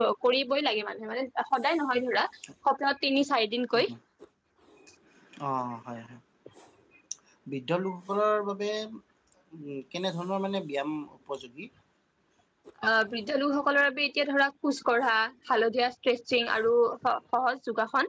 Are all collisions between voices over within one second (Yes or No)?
Yes